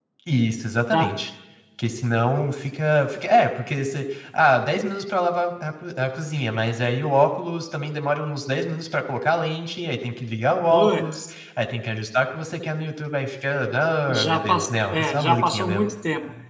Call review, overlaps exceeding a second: present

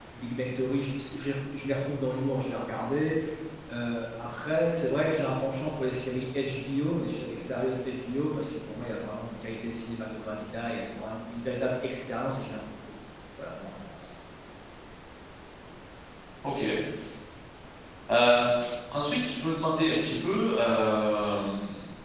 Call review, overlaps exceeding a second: none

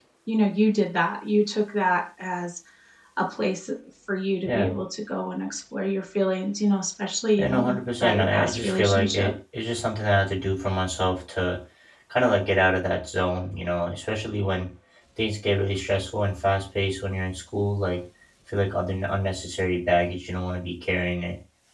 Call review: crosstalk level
present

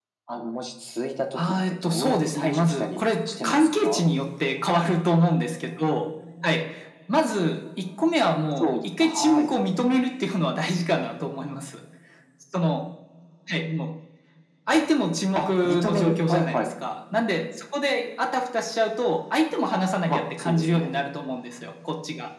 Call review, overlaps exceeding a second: present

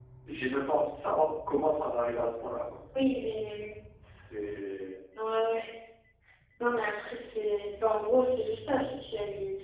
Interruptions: none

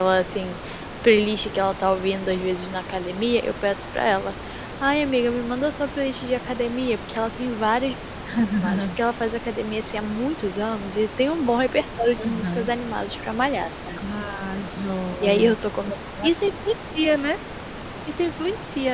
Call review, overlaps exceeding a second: none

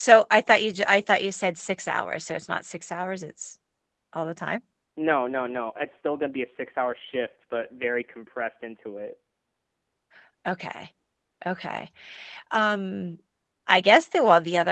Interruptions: none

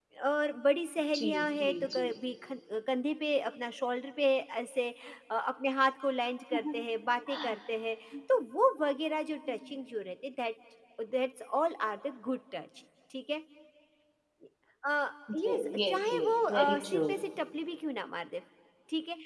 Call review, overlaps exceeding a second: present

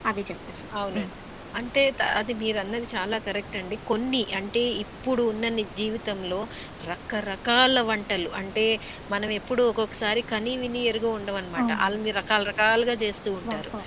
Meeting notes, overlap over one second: none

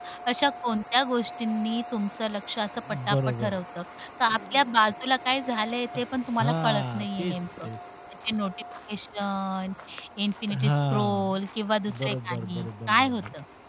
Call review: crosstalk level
present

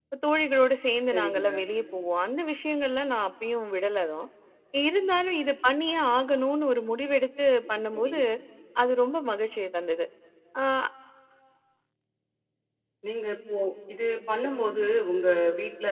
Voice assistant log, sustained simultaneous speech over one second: none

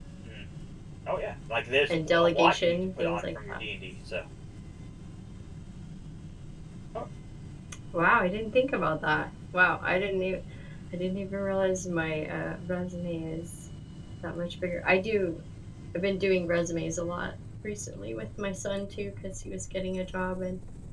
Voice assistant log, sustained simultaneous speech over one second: present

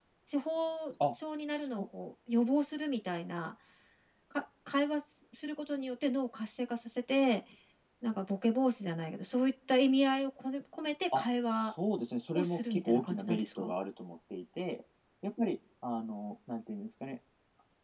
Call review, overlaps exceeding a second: present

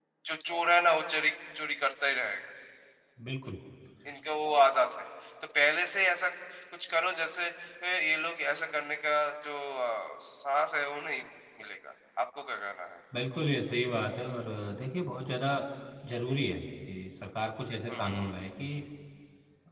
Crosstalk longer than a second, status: none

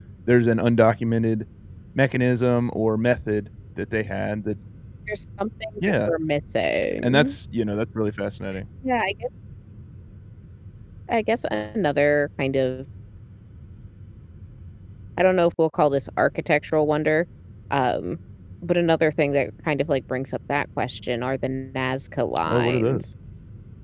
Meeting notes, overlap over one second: none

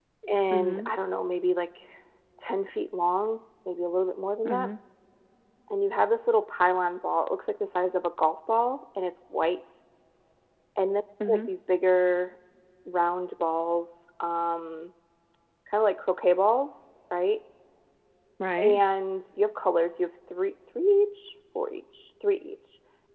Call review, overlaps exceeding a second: none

